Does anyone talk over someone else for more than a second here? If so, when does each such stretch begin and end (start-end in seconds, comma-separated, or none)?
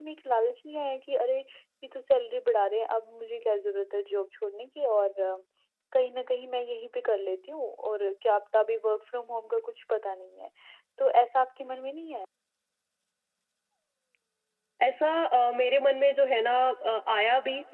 none